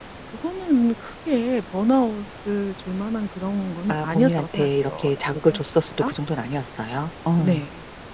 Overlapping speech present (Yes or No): Yes